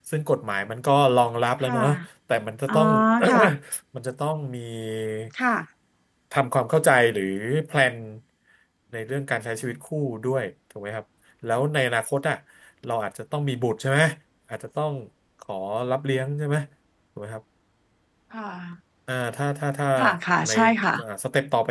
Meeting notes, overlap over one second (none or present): none